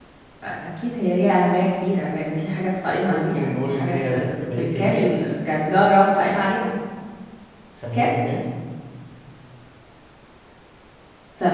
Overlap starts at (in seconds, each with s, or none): 3.1 s